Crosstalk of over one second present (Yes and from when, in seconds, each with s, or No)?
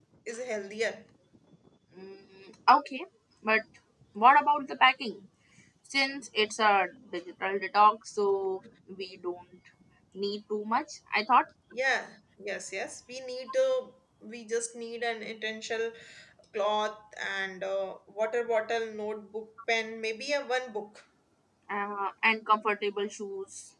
No